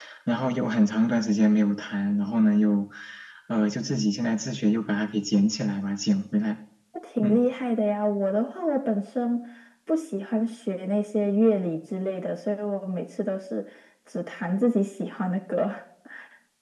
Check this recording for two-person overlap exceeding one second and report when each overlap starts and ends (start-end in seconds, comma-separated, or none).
none